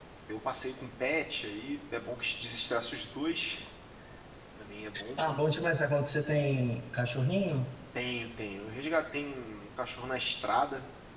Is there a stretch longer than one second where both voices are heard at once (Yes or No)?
No